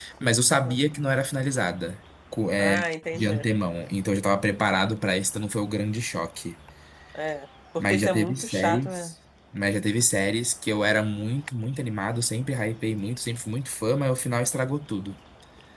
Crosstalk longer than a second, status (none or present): present